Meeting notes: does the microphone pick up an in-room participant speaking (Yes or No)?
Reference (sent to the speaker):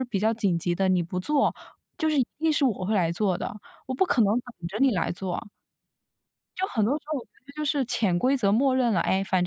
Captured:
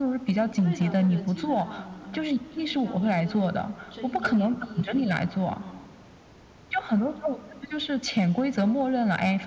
Yes